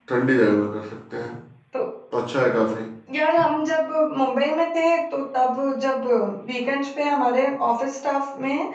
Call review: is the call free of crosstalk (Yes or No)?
Yes